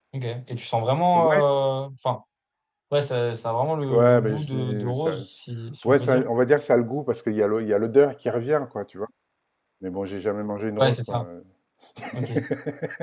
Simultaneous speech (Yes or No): Yes